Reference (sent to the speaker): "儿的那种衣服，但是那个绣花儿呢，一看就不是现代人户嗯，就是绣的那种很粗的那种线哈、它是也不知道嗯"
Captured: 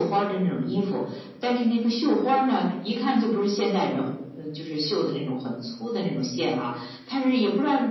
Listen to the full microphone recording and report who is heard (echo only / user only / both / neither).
echo only